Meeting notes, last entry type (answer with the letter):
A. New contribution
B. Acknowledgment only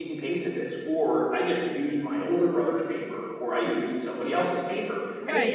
A